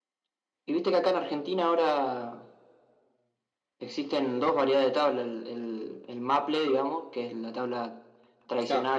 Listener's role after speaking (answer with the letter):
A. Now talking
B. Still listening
B